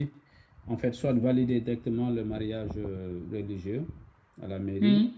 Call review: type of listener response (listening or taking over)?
listening